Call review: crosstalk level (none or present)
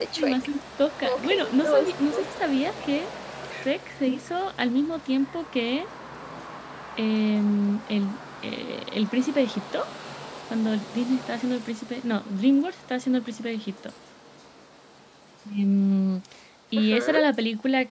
present